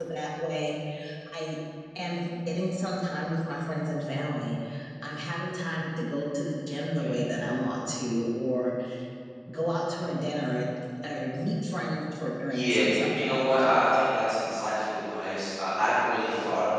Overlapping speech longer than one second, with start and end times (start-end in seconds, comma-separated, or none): 12.5-13.7